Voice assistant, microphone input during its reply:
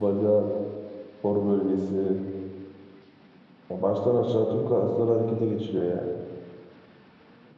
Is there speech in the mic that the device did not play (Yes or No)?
Yes